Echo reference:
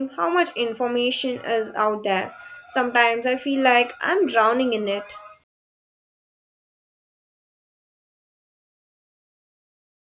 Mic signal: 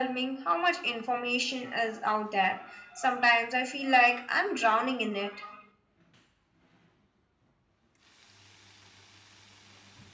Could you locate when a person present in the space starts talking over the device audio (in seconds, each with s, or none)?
none